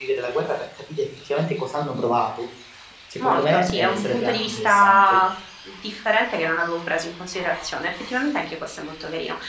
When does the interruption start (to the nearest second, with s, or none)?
3 s